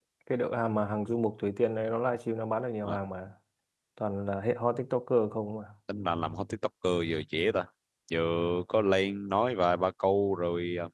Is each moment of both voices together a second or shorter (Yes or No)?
Yes